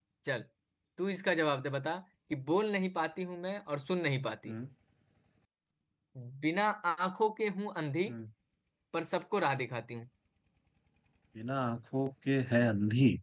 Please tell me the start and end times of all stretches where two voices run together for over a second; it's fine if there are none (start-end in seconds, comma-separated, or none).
none